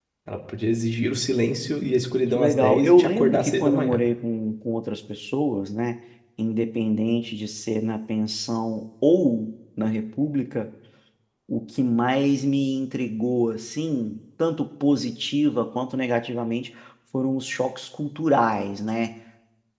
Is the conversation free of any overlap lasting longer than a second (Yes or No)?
No